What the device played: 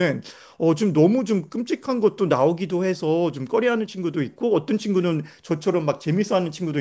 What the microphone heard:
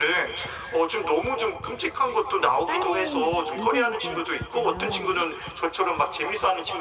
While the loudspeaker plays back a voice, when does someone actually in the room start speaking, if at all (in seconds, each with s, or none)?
2.6 s